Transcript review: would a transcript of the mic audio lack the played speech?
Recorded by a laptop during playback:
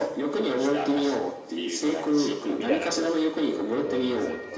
No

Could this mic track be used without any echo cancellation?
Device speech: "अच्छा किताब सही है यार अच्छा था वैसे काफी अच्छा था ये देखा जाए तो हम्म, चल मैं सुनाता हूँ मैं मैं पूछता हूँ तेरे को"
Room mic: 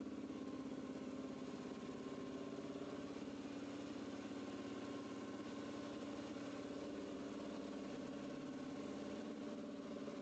Yes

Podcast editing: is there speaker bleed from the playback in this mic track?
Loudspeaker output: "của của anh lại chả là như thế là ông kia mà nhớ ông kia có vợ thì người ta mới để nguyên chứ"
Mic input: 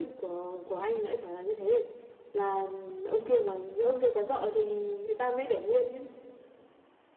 Yes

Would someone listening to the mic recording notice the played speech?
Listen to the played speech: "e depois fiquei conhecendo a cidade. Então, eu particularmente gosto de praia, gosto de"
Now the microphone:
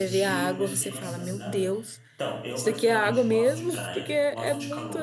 Yes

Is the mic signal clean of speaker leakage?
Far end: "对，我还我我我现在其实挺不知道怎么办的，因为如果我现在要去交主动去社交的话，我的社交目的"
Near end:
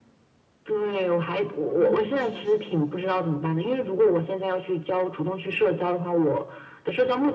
No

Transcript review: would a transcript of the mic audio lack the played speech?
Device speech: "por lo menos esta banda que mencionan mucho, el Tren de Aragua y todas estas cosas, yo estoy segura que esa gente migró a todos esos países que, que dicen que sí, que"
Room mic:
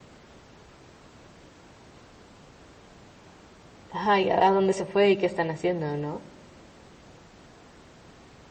Yes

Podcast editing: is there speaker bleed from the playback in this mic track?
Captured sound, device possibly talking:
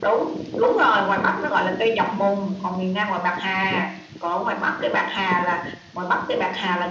Yes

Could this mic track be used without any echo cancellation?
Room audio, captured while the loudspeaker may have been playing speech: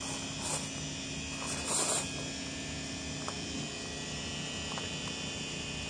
Yes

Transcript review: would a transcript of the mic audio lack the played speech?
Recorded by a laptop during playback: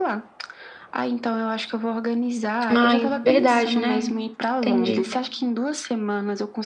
No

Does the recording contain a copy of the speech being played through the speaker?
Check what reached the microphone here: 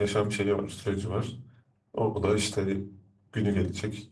No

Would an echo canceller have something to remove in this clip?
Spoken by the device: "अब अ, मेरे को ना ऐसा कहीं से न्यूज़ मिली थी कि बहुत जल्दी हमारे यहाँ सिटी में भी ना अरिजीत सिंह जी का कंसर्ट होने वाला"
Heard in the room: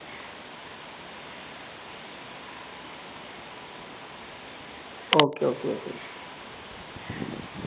No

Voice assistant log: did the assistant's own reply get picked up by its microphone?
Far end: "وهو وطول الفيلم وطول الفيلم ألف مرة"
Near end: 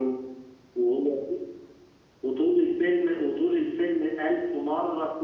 Yes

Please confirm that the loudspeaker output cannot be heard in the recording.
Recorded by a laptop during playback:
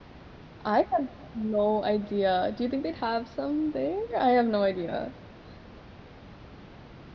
Yes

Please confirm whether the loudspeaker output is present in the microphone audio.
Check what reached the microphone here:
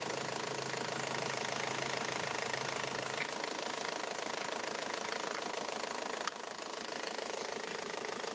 No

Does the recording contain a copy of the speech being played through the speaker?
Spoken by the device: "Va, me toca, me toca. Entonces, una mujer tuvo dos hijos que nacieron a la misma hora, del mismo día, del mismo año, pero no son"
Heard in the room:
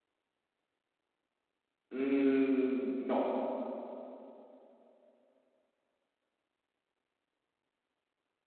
No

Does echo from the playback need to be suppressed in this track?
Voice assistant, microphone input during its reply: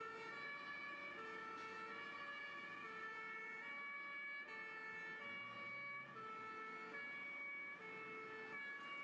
No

